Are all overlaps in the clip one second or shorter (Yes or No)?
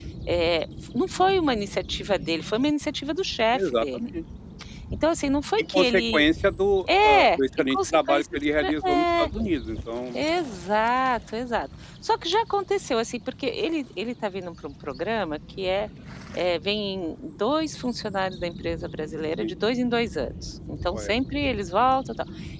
No